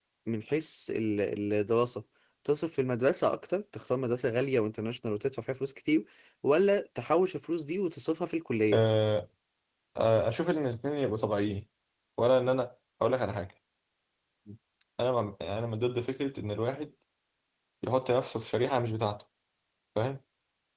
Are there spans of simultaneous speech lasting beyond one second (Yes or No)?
No